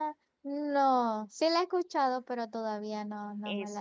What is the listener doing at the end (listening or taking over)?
taking over